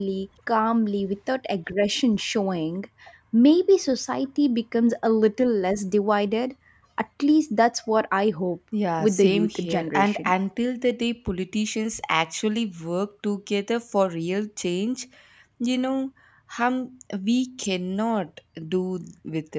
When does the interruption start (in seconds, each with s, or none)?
9.0 s